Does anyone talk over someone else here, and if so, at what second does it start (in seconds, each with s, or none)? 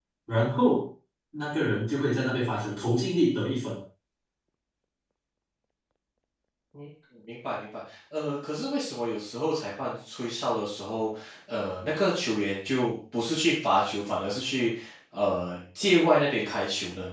none